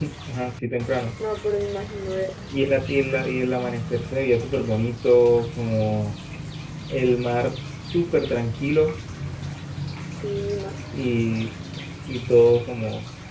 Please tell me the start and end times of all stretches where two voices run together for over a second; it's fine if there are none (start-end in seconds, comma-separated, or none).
none